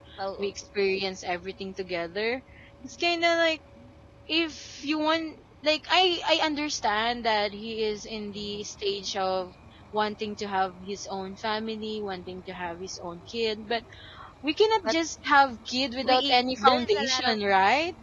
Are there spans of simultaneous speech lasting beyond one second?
Yes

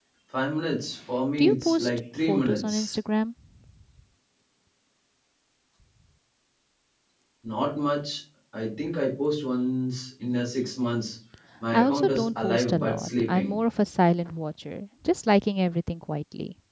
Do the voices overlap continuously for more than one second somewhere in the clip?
Yes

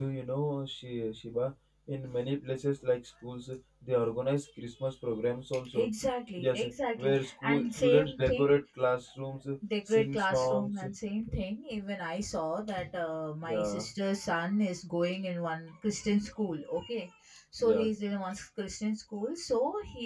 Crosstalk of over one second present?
Yes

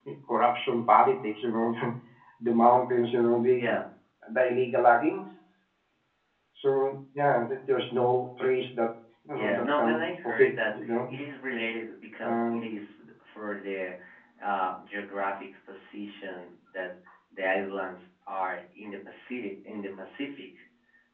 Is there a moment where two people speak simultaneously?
Yes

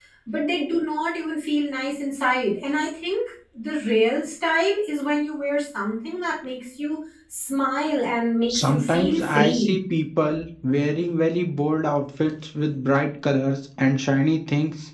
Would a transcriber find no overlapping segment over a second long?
No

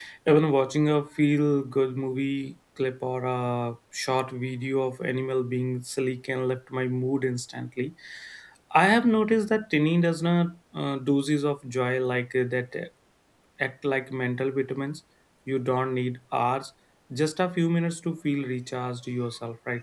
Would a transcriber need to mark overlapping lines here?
No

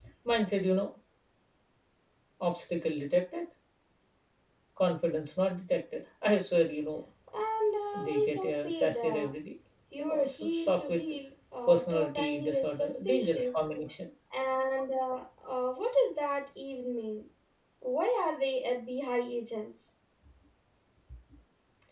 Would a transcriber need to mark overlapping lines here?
Yes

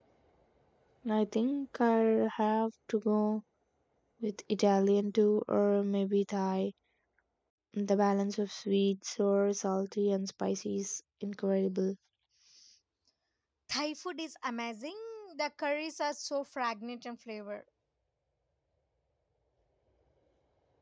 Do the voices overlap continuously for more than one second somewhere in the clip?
No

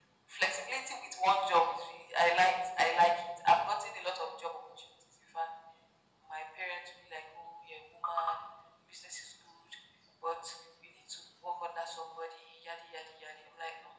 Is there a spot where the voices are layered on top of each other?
No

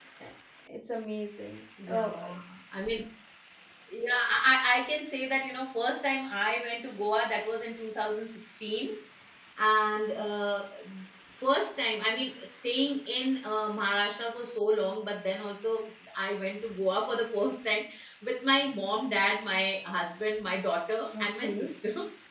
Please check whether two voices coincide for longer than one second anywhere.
No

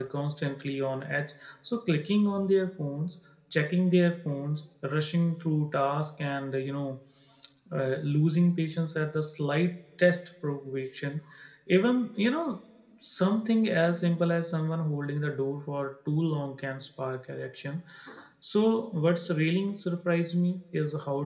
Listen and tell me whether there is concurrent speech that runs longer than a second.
No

